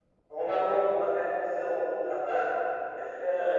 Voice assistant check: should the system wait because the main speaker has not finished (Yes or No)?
Yes